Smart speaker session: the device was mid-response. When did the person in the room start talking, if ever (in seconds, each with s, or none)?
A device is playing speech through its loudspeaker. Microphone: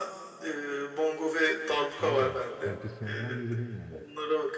2.0 s